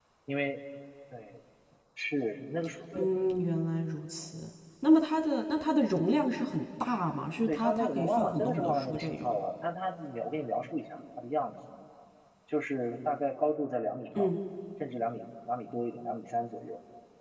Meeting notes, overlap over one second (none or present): present